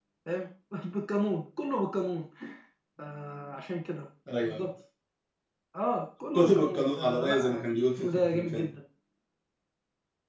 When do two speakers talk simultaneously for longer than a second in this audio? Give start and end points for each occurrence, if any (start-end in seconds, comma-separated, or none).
6.3-8.7